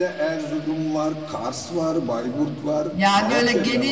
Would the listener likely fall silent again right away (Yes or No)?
No